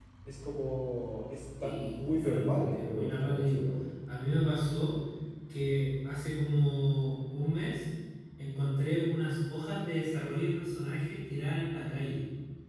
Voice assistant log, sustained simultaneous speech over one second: present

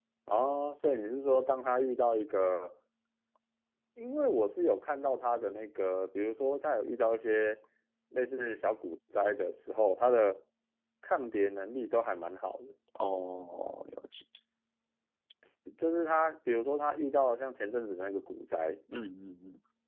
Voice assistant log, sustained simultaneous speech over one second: none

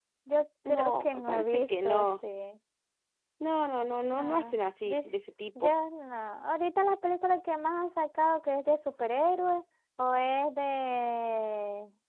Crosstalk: present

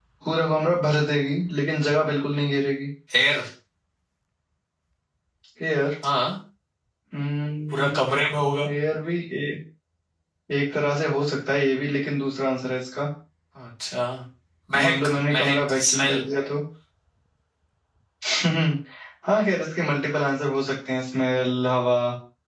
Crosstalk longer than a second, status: present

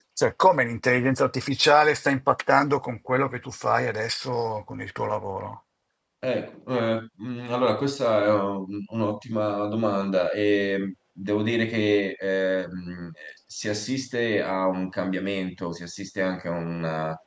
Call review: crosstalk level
none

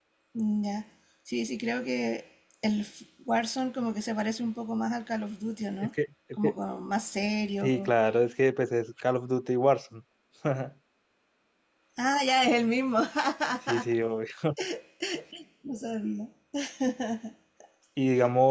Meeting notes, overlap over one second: none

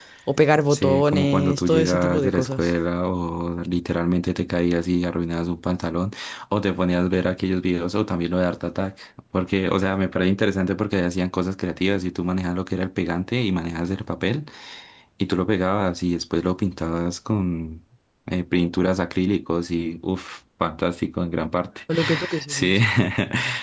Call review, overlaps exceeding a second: present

